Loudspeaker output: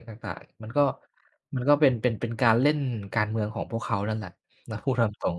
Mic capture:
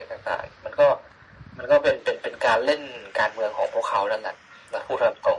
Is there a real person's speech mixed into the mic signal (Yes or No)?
No